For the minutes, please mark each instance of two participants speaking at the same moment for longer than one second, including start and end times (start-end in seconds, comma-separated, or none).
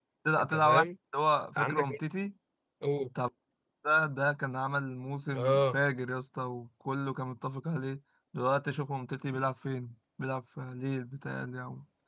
none